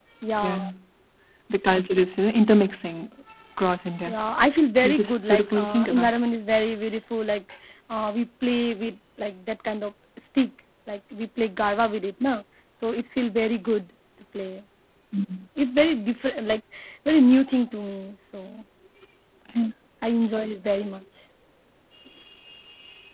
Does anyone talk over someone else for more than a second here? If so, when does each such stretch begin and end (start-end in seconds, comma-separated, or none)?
4.8-6.1